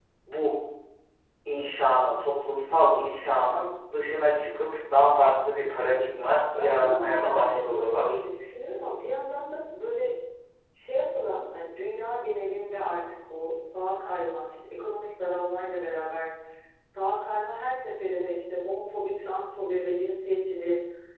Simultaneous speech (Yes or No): Yes